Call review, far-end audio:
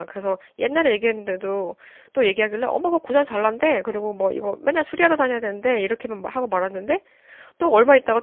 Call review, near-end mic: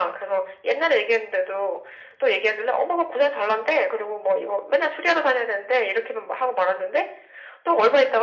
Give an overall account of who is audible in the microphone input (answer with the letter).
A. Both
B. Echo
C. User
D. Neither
B